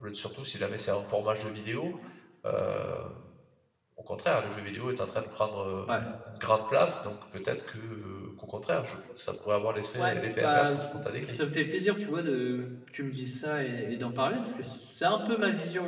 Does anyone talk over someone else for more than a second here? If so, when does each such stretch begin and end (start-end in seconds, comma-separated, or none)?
10.0-11.4